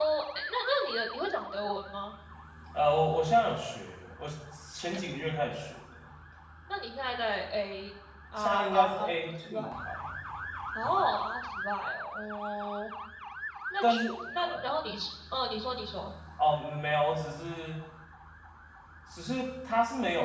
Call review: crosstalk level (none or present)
present